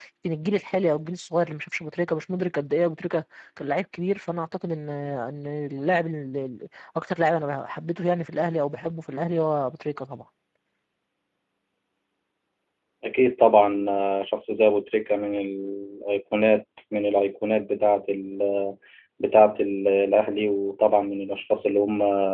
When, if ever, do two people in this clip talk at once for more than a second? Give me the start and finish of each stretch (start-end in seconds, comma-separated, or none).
none